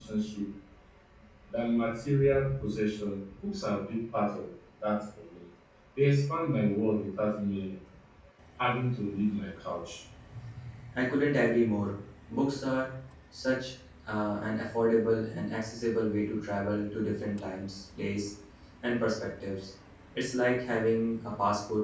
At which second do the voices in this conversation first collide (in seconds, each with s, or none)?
none